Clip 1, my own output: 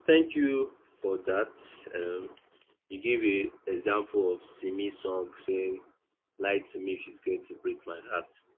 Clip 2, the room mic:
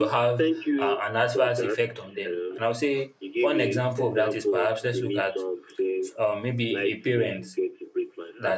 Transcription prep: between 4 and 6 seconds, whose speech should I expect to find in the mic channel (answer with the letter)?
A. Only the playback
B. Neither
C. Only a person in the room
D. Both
D